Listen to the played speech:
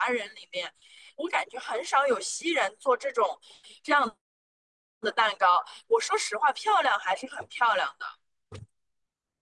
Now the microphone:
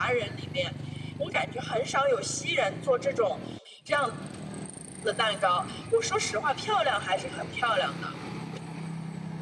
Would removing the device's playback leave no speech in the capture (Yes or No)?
Yes